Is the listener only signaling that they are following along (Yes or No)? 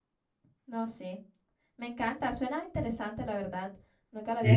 No